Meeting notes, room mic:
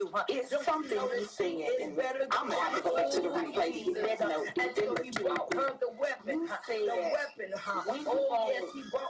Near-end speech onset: 2.9 s

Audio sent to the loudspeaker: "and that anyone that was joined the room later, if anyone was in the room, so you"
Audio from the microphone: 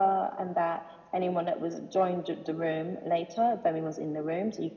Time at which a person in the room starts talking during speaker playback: none

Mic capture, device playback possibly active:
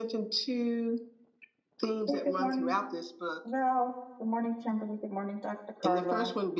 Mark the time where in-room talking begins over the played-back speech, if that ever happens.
2.0 s

